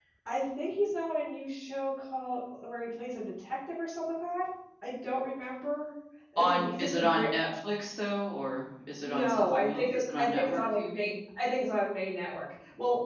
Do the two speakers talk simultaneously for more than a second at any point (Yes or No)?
Yes